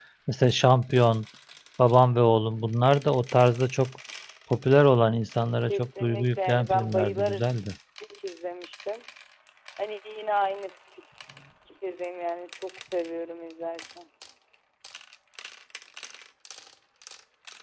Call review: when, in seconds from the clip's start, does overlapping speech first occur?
5.6 s

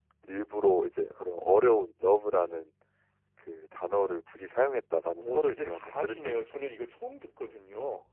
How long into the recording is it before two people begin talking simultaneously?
5.2 s

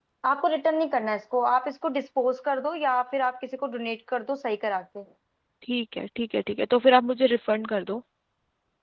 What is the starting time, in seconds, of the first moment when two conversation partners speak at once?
none

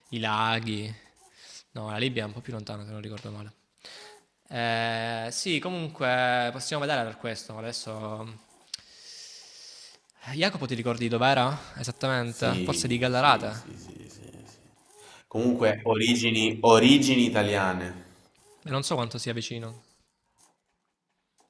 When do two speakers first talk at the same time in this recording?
12.3 s

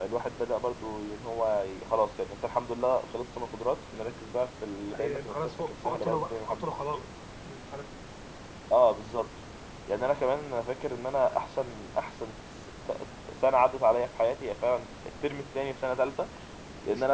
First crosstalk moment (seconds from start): 4.9 s

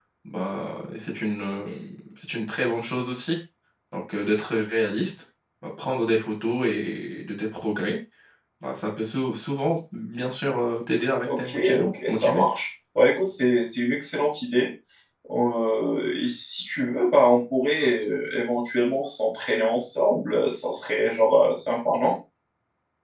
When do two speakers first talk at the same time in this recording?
11.3 s

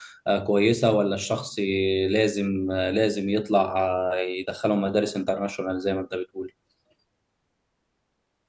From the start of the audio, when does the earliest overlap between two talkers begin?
none

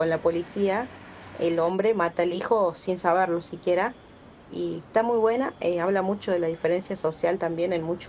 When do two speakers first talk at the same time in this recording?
none

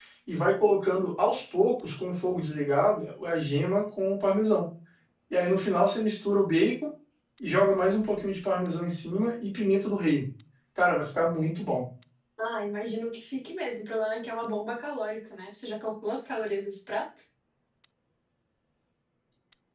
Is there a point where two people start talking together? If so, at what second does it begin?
none

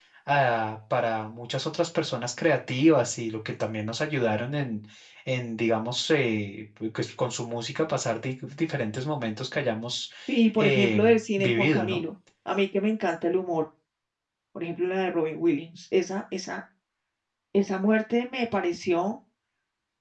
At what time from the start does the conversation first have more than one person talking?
10.6 s

